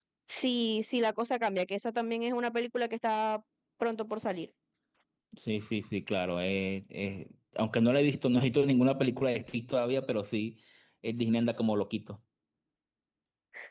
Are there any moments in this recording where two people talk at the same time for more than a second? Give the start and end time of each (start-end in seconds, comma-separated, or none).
none